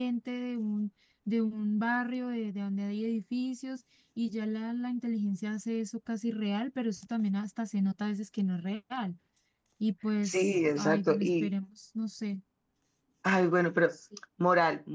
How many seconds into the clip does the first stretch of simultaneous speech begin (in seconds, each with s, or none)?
10.2 s